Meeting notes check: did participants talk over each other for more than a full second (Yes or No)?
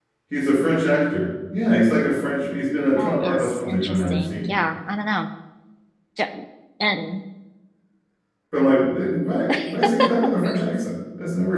Yes